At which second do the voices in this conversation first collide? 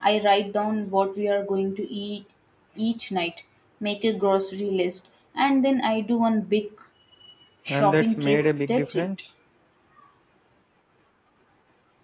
7.7 s

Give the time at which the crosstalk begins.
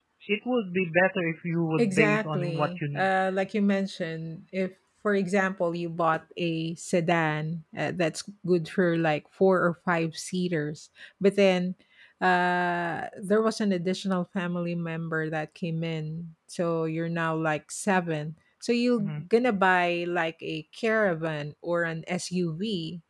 1.8 s

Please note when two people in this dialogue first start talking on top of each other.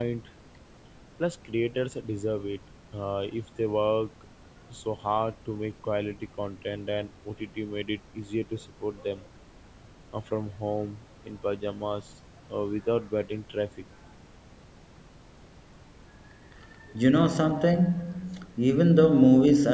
none

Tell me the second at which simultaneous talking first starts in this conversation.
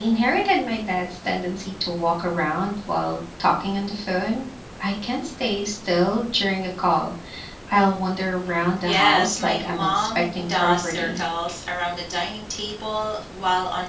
8.8 s

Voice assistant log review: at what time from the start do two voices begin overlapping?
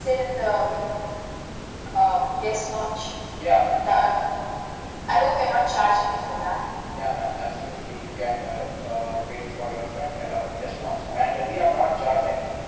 none

